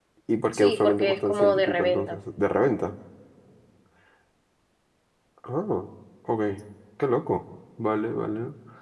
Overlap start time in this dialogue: 1 s

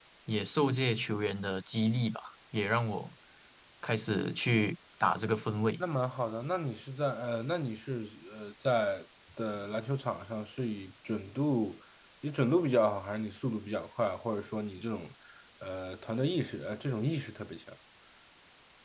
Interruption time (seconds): none

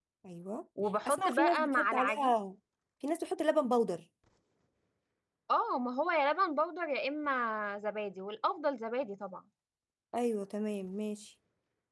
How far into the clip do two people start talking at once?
1 s

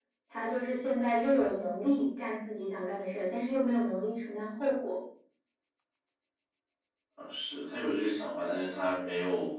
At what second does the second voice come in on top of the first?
none

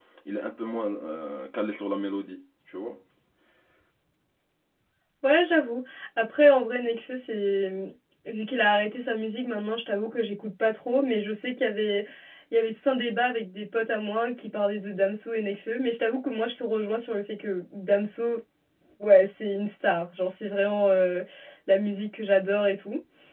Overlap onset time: none

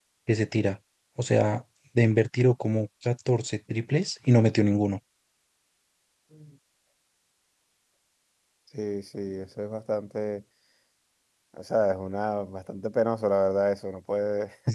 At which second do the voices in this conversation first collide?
none

